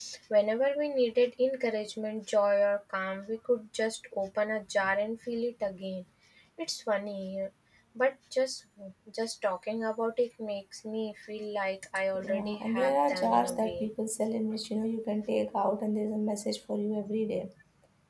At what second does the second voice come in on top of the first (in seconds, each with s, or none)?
12.2 s